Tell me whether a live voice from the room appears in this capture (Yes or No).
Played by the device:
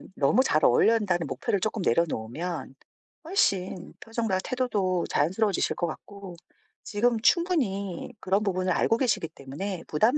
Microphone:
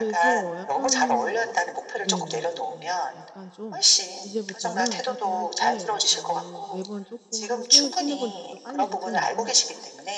Yes